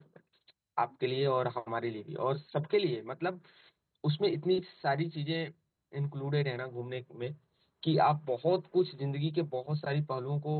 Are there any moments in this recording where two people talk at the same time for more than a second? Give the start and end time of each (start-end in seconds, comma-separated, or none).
none